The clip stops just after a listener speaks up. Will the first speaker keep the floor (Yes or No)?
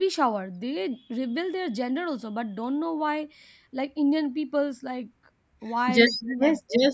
No